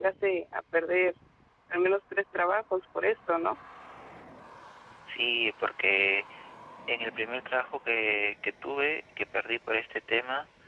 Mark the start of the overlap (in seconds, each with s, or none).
none